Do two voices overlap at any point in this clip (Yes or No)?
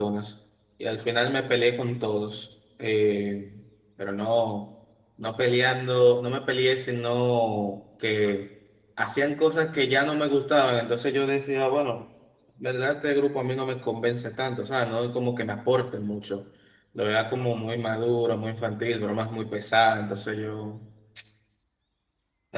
No